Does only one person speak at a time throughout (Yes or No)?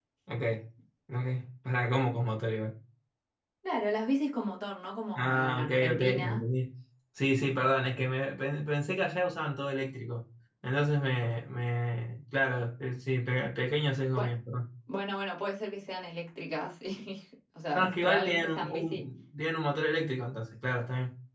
No